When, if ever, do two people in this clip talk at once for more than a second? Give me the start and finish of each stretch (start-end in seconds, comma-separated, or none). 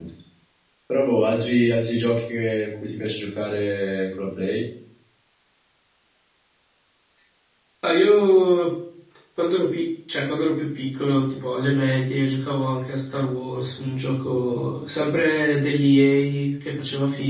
none